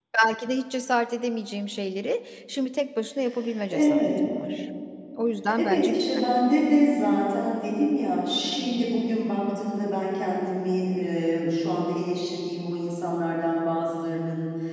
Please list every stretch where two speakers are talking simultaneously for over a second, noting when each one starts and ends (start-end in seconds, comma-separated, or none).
none